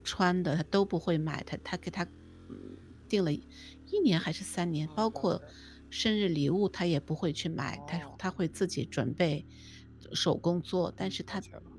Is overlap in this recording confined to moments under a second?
Yes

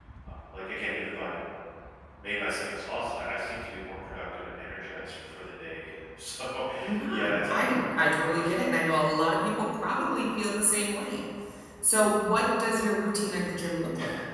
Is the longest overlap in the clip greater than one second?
Yes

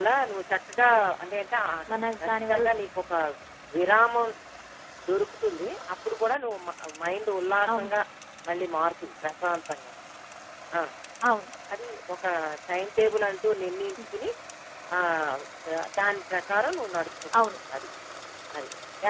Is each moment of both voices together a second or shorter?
Yes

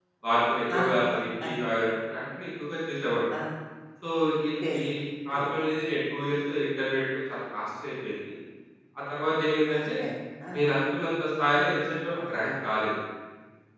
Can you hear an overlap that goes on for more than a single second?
No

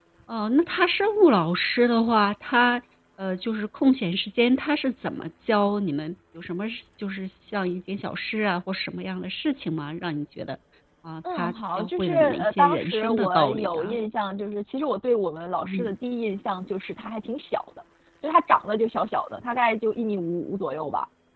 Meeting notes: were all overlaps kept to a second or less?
No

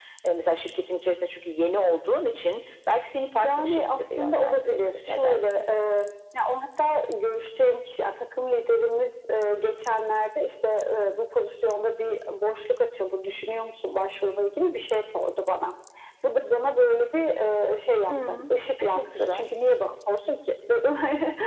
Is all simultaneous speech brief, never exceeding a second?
No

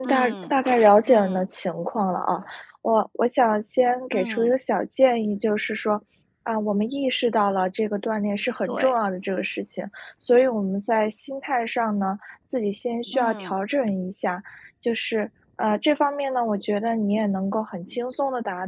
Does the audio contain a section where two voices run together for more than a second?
No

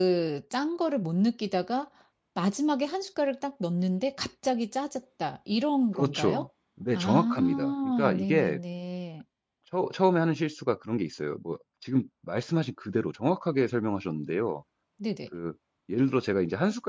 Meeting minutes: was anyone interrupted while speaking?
Yes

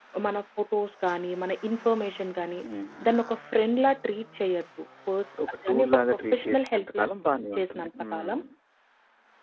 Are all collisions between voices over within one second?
No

